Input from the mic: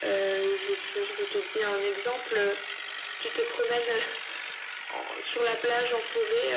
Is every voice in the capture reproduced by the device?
Yes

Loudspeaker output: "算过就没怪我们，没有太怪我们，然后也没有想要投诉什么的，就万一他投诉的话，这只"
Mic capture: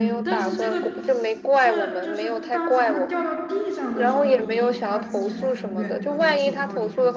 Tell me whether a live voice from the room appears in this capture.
Yes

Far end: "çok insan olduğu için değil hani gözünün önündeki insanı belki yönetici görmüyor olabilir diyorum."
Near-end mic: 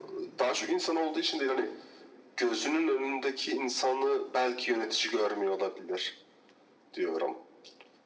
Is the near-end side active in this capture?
No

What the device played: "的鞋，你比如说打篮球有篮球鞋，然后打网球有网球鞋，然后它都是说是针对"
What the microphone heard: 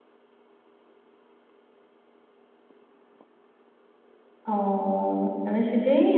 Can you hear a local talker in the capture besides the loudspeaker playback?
Yes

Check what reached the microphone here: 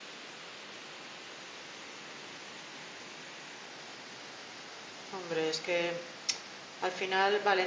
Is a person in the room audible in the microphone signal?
Yes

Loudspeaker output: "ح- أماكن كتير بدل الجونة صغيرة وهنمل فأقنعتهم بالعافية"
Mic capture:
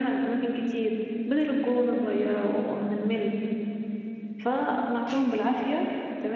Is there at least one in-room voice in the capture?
No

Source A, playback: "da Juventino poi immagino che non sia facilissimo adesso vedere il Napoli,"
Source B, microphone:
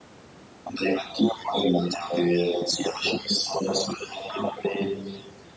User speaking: No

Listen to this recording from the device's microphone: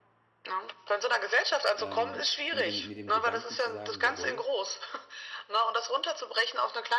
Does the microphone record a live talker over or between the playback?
Yes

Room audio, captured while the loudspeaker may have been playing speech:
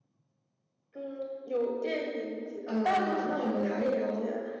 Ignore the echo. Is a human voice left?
Yes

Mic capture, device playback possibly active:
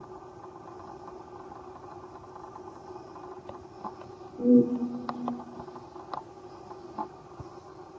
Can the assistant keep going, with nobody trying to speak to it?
No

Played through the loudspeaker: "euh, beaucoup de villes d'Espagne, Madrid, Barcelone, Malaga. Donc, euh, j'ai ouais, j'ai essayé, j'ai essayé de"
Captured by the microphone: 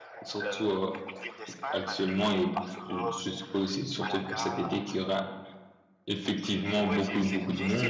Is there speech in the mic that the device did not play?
Yes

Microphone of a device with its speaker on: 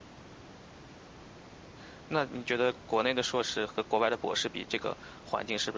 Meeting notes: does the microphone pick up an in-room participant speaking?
Yes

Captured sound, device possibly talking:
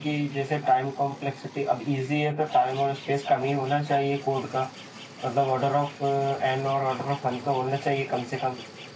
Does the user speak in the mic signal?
No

